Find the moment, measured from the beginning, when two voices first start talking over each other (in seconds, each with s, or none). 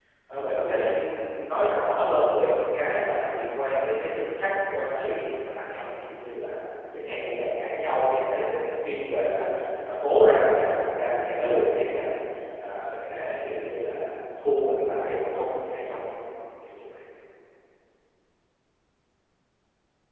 none